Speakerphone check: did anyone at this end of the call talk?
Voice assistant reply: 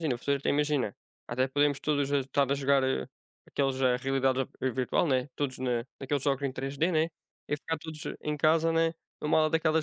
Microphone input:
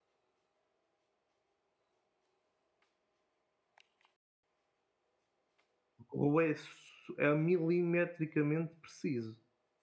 Yes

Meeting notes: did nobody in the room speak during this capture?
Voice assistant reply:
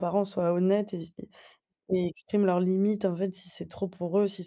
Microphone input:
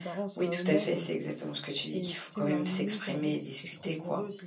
No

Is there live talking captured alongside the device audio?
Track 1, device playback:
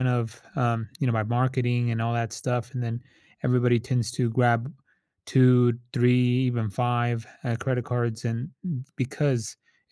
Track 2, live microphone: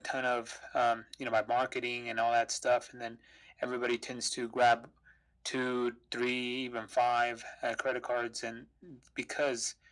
No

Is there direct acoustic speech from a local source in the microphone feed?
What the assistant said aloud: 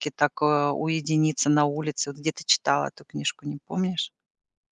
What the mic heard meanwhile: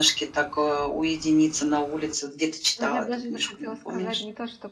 Yes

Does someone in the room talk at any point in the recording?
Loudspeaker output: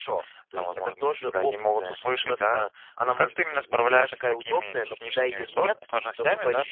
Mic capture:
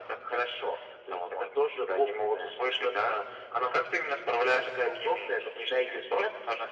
No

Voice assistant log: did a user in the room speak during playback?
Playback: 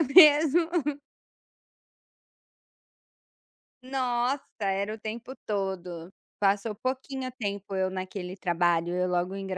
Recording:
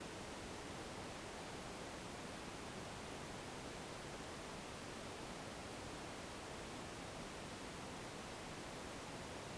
No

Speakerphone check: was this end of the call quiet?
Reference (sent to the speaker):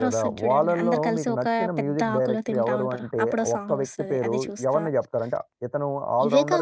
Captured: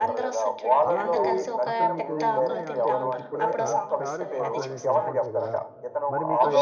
No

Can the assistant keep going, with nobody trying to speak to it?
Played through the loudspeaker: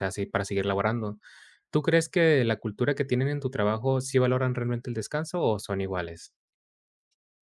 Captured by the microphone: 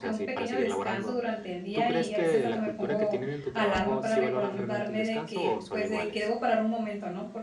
No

